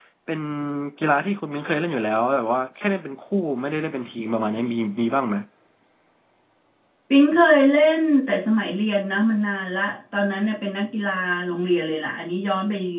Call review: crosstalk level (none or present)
none